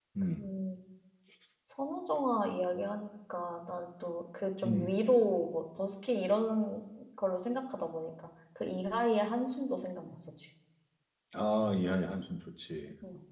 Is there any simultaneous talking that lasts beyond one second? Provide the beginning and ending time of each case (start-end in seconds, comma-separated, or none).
none